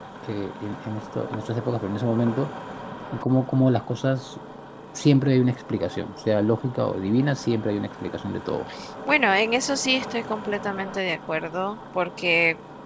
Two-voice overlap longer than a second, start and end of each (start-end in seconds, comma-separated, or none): none